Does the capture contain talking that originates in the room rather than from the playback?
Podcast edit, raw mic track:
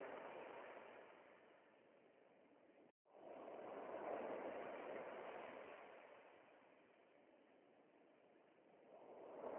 No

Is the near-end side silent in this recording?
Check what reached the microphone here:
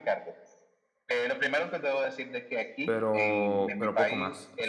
No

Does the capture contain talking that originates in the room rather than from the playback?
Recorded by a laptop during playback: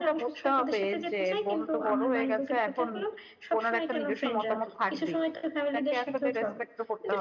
No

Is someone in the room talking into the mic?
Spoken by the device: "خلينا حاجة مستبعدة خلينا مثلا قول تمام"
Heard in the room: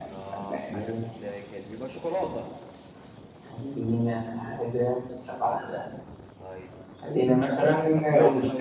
Yes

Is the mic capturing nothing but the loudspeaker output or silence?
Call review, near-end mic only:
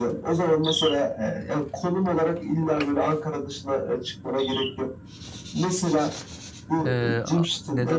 No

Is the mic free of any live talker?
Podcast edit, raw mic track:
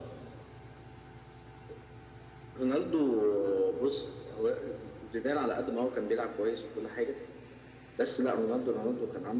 Yes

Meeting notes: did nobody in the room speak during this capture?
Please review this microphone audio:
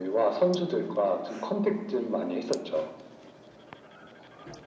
Yes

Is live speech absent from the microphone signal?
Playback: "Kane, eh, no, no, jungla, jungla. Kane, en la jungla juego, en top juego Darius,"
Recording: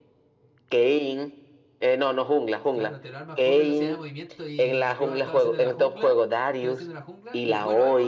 No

